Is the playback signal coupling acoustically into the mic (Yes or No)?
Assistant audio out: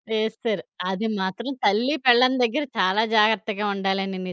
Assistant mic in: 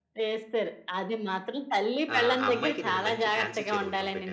Yes